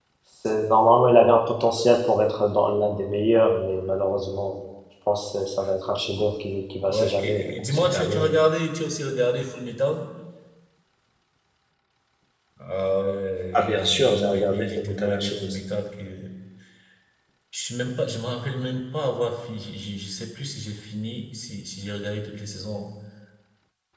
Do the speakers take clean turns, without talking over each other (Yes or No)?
No